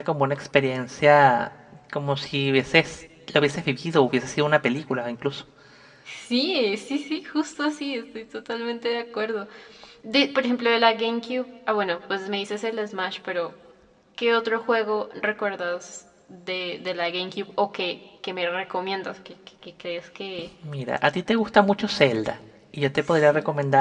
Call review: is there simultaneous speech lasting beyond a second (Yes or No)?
No